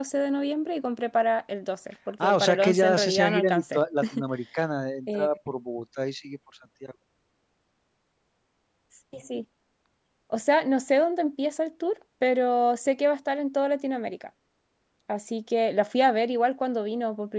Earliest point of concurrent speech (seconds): 2.2 s

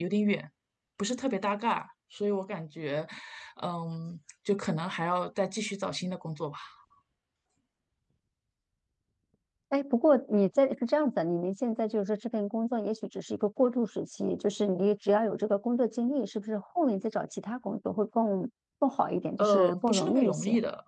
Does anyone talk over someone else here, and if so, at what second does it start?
19.4 s

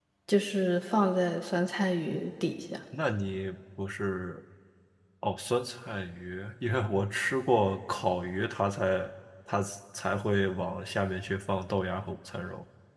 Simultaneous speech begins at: none

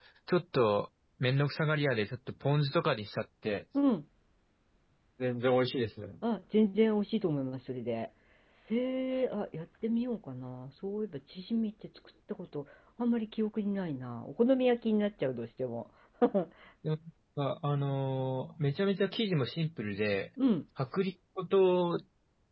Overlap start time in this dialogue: none

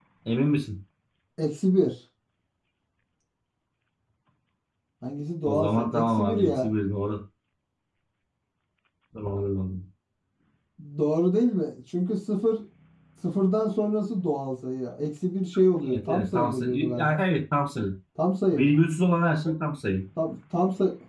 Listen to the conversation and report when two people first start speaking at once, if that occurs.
5.5 s

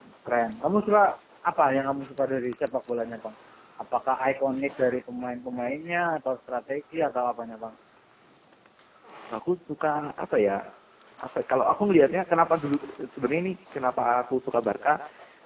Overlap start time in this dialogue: none

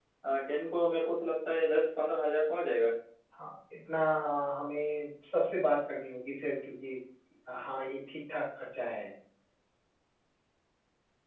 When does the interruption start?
none

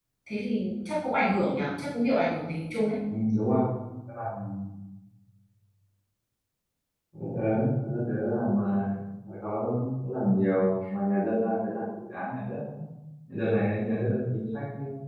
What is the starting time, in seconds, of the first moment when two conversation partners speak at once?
none

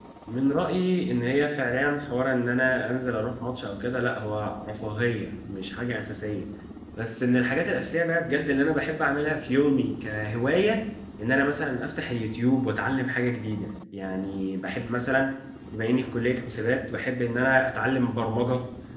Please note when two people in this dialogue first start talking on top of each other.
none

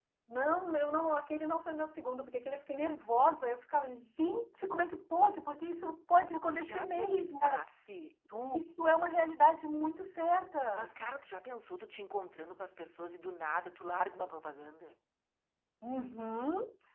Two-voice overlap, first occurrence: 6.2 s

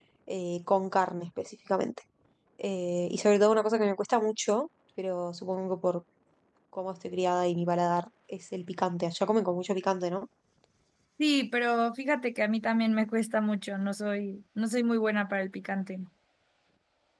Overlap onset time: none

